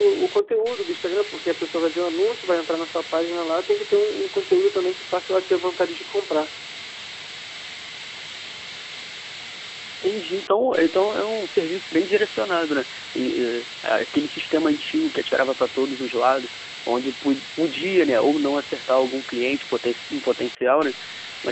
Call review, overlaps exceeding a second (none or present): none